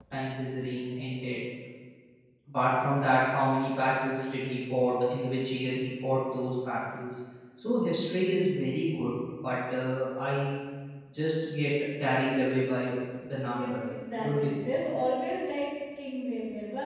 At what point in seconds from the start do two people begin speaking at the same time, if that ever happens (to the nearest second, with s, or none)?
14 s